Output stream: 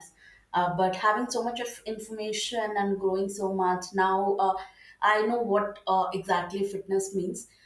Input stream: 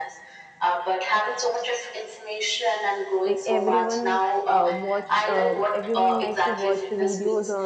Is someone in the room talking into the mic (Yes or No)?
Yes